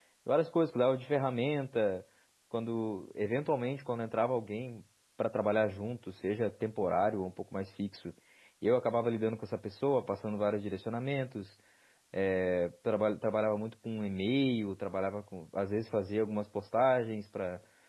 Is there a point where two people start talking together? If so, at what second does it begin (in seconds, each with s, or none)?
none